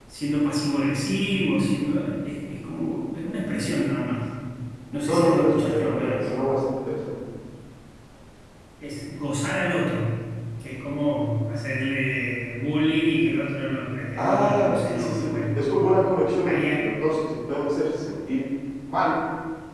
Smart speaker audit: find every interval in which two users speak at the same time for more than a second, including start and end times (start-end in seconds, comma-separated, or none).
5.1-6.3, 14.2-15.6